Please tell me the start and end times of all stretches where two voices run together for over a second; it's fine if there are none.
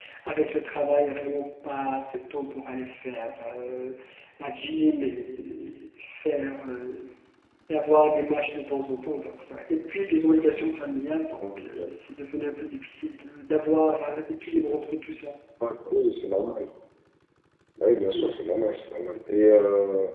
none

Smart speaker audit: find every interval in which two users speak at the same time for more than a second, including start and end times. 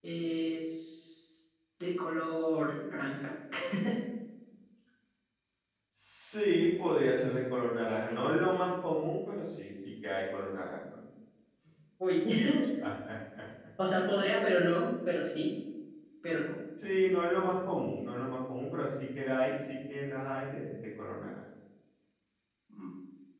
none

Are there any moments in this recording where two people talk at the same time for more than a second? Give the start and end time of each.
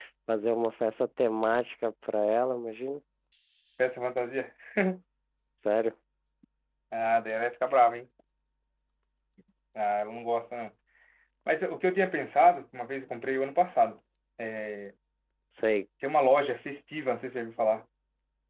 none

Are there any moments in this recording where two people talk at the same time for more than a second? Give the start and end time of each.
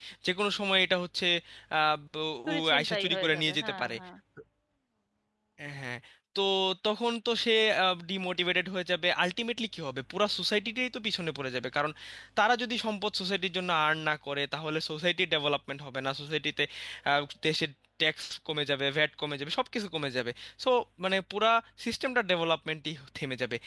2.5-4.0

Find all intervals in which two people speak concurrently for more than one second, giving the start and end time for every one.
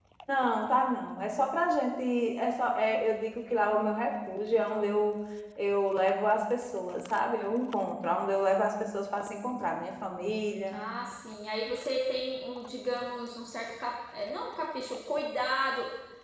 none

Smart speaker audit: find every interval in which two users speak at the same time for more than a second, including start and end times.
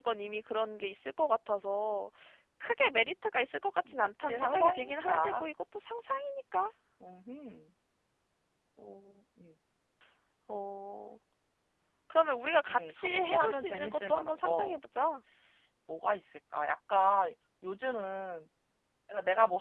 3.9-5.4, 12.7-14.8

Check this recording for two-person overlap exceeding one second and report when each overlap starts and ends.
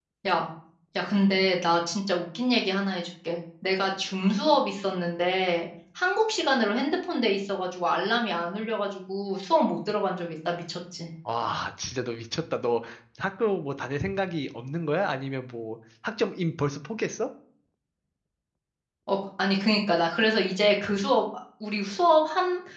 none

